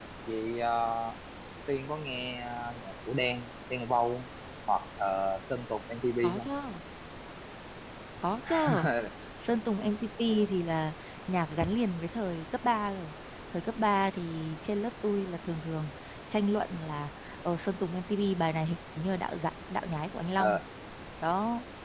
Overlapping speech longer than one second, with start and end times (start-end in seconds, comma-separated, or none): none